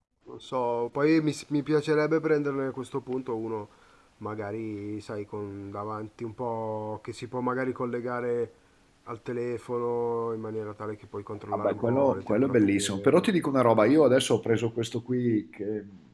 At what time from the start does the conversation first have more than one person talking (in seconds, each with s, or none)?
11.5 s